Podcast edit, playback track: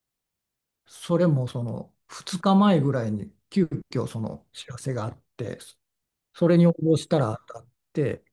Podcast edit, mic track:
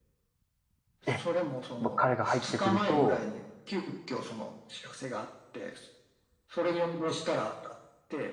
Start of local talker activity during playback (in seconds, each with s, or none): 1.0 s